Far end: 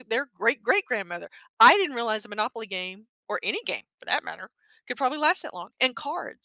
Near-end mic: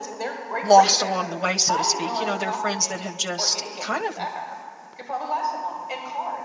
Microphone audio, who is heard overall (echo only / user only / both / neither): both